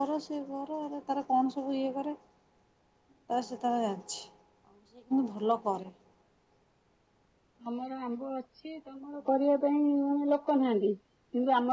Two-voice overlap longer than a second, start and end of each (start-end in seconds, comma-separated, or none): none